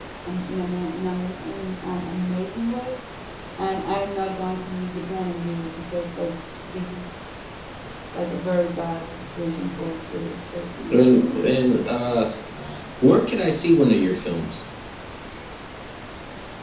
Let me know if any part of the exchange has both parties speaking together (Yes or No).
No